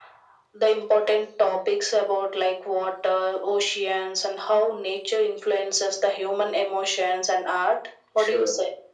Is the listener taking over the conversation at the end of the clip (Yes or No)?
Yes